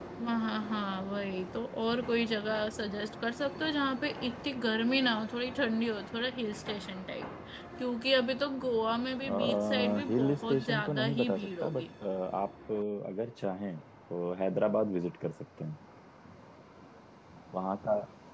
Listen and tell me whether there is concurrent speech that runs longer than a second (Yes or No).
Yes